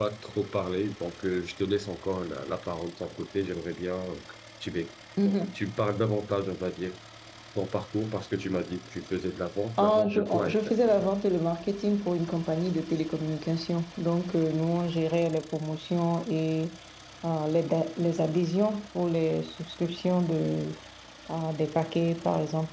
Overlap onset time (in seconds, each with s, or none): 9.8 s